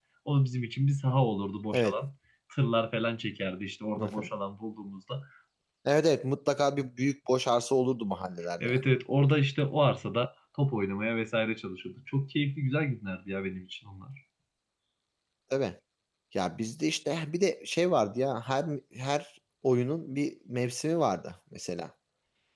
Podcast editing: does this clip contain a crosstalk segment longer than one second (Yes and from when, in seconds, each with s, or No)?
No